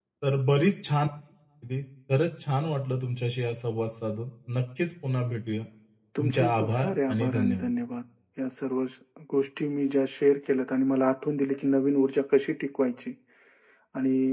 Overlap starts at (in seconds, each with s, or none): 6.2 s